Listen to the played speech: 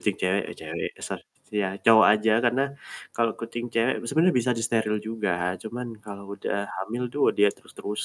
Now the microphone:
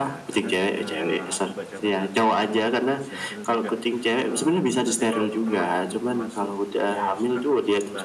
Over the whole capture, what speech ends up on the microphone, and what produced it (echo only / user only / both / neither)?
both